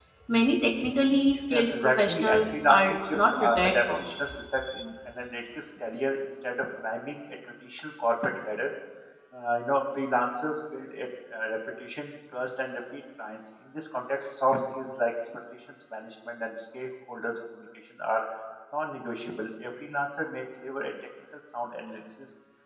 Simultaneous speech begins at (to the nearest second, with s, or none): 1 s